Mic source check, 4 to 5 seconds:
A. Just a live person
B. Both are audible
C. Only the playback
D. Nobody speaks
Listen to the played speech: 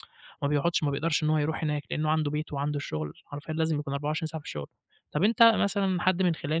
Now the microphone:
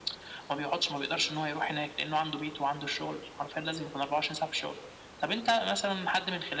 C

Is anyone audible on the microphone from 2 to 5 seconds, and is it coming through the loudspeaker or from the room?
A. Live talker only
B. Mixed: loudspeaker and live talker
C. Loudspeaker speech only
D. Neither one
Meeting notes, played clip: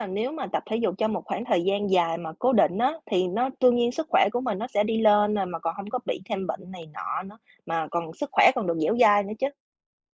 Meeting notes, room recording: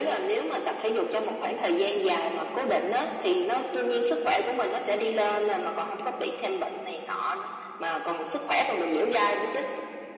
C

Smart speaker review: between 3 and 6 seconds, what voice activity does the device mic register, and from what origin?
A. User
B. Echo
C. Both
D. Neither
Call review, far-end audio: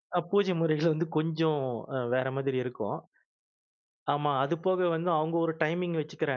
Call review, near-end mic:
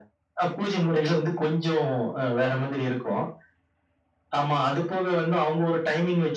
B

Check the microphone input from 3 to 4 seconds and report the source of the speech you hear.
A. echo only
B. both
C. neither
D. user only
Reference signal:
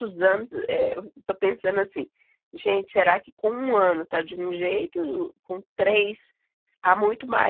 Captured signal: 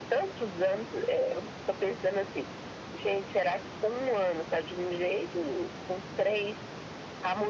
A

